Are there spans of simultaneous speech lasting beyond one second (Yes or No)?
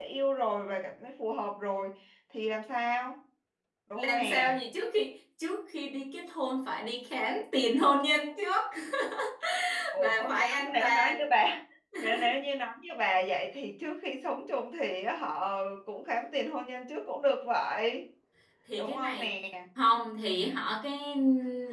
Yes